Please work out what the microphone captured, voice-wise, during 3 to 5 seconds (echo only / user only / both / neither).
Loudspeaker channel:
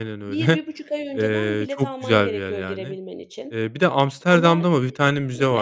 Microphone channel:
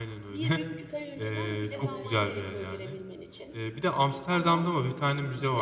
echo only